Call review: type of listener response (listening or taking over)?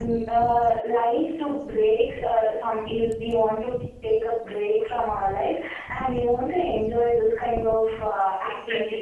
taking over